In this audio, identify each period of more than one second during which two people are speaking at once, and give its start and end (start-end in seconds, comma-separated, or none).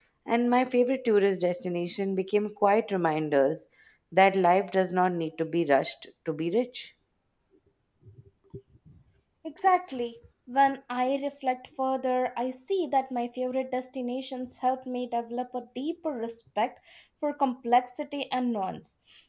none